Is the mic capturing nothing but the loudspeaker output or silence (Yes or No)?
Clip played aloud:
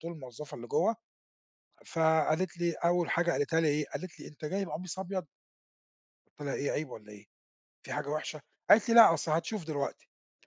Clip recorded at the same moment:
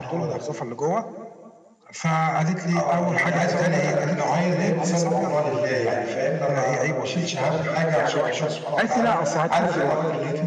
No